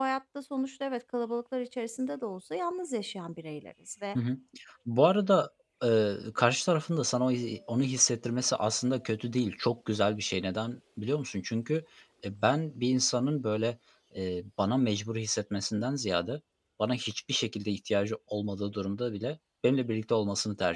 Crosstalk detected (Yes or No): No